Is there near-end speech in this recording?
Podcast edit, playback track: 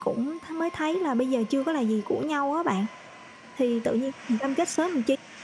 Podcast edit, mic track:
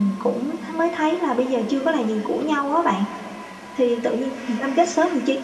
No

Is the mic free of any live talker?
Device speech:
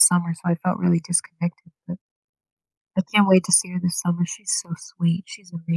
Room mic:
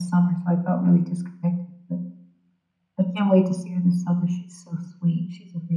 Yes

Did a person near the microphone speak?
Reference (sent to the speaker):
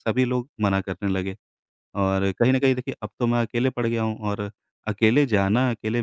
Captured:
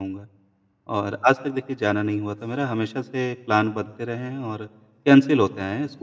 Yes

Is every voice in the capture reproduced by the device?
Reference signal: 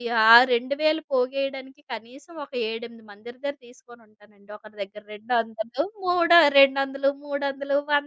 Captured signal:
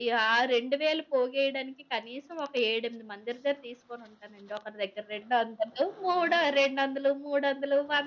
Yes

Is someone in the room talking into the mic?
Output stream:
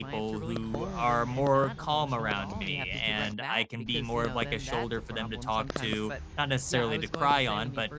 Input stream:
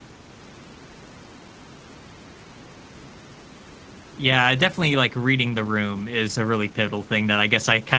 Yes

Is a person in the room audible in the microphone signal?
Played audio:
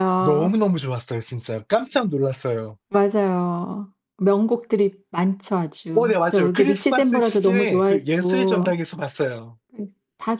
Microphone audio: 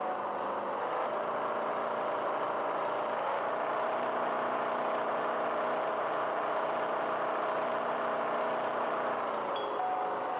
No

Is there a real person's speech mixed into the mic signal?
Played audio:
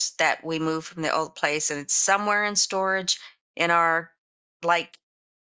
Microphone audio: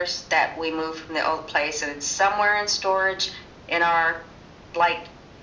No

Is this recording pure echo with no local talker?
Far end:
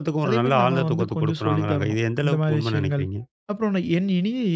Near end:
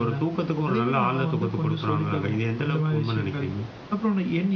Yes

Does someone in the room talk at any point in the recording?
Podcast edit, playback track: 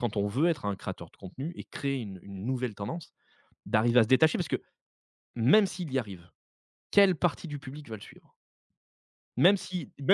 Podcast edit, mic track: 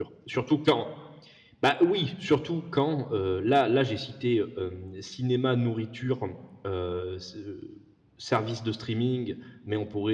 Yes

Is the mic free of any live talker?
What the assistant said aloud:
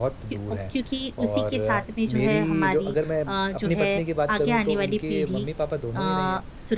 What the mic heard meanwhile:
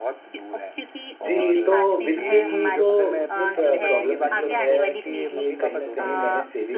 No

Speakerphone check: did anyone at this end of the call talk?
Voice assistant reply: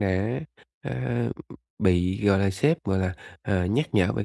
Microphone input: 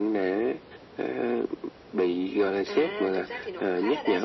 Yes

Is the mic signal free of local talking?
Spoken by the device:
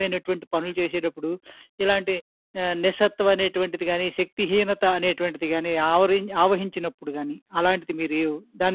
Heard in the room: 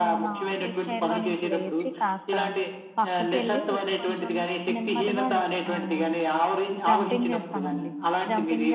No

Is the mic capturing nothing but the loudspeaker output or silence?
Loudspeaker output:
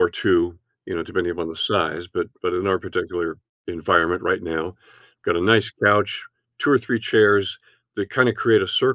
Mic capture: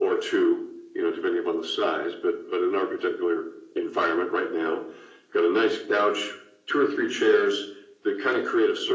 Yes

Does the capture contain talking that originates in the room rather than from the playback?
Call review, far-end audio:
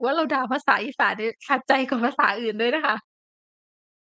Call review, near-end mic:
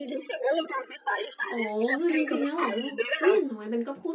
Yes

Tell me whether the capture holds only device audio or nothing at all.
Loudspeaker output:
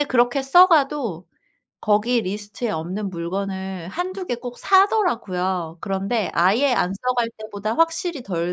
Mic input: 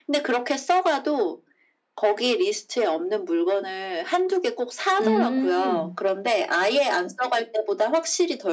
No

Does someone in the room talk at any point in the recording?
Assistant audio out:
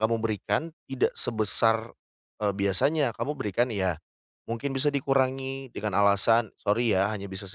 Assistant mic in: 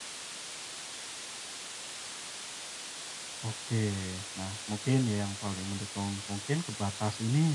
Yes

